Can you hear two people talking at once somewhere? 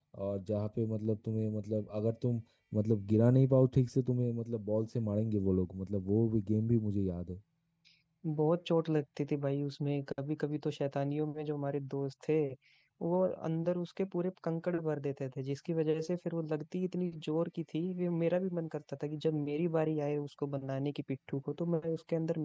No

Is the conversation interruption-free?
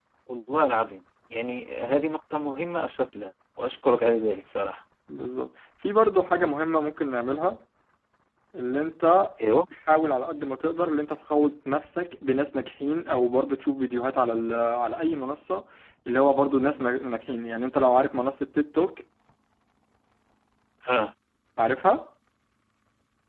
Yes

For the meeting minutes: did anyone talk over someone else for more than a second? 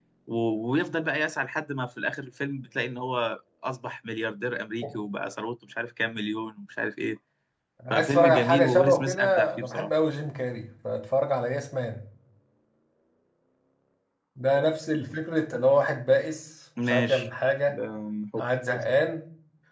Yes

